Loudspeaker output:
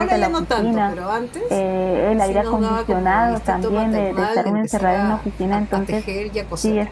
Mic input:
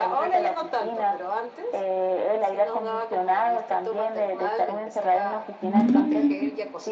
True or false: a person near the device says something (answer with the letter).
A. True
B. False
A